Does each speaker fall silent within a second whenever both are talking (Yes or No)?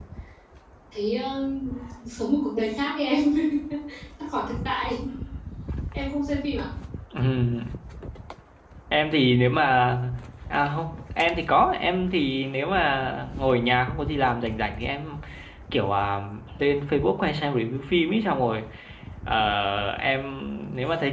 Yes